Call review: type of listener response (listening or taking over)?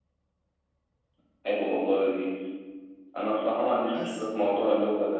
listening